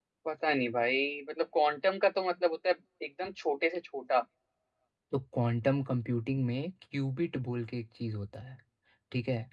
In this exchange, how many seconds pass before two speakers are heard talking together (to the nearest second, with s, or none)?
none